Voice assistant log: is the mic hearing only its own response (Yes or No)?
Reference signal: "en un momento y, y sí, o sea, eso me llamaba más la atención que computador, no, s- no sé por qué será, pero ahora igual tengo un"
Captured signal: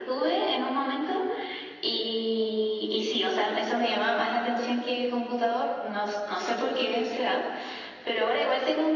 Yes